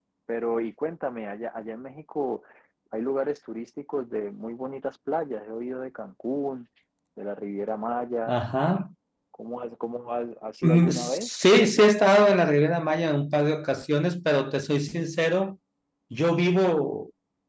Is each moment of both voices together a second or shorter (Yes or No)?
No